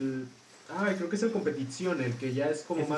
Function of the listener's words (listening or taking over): taking over